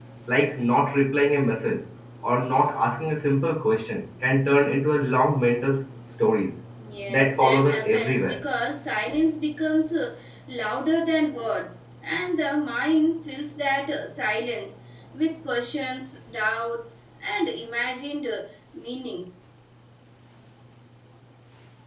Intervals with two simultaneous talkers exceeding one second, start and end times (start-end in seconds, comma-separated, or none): 7.1-8.4